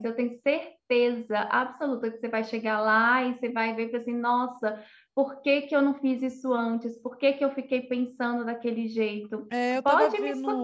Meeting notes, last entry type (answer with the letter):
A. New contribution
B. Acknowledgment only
A